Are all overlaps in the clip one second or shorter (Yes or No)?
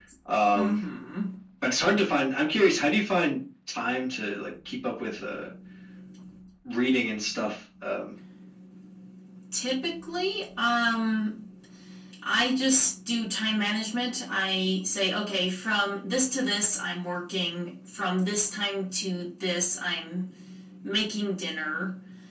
Yes